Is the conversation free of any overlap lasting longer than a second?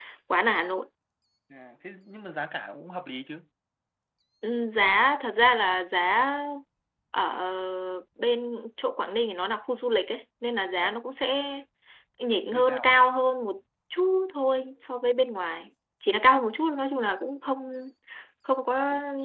Yes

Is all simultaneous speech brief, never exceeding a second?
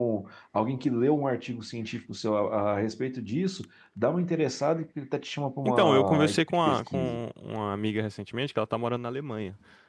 No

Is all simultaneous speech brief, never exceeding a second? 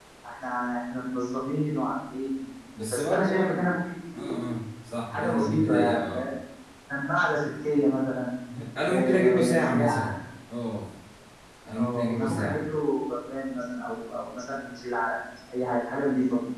No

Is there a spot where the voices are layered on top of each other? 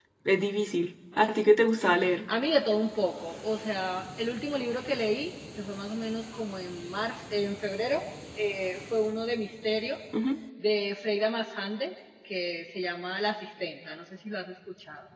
No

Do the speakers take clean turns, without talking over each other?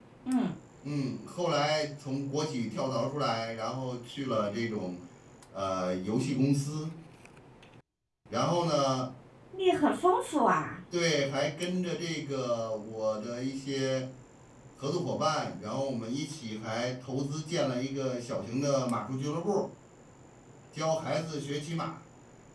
Yes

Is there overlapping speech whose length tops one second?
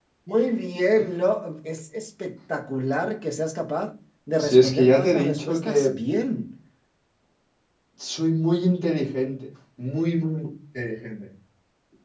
Yes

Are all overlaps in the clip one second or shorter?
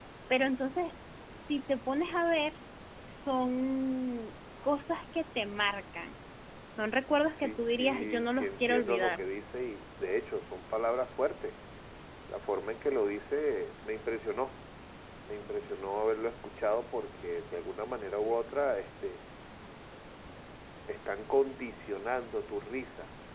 No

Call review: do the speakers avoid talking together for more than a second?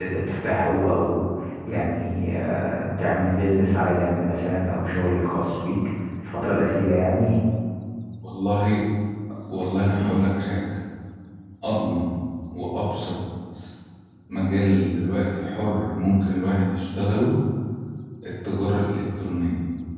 Yes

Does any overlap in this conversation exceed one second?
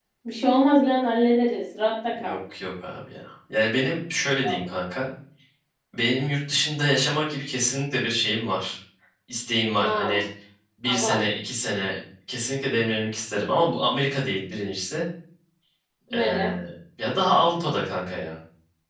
No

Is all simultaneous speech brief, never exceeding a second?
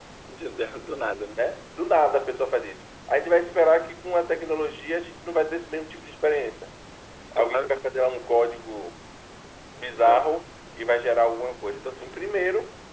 Yes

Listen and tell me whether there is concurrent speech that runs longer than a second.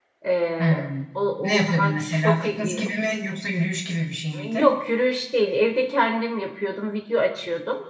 Yes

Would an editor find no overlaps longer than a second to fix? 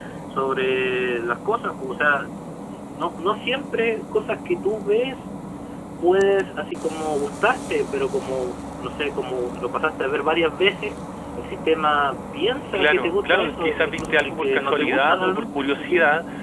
No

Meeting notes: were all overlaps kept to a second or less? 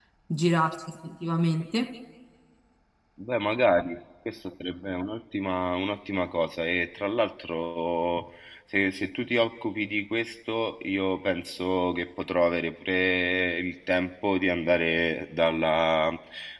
Yes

